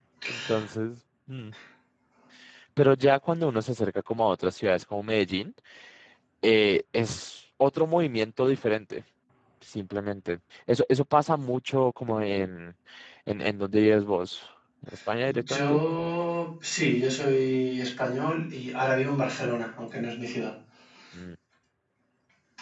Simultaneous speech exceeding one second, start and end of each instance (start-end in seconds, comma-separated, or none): none